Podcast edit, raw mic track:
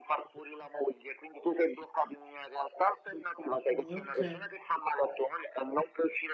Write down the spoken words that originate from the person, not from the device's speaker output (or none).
Eh, Ok,